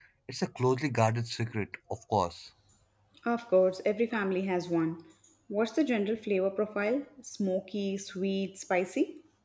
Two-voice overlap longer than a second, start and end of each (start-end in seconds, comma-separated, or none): none